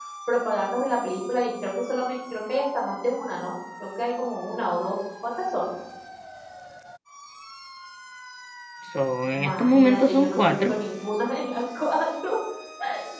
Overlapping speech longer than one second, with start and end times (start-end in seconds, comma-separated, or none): 9.3-10.8